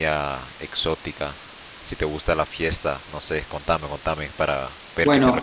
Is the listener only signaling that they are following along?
No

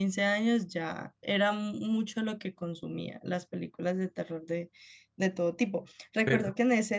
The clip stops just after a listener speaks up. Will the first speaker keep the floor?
Yes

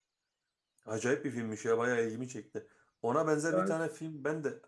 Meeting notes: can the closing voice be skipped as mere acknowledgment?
Yes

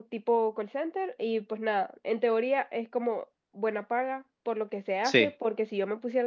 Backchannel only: Yes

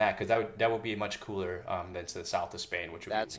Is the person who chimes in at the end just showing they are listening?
Yes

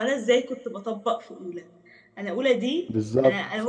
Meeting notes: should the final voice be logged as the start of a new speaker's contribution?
No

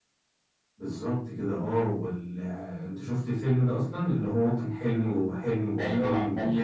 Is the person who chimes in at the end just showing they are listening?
No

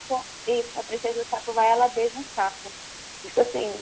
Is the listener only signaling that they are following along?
No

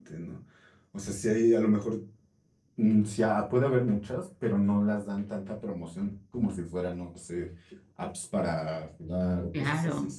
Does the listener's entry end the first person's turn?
No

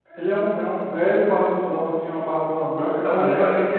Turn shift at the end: Yes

